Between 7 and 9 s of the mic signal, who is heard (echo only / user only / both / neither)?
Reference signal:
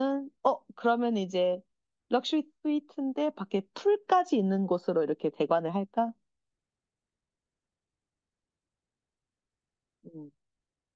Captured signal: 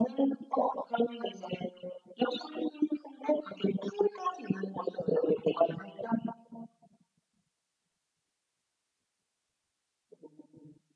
neither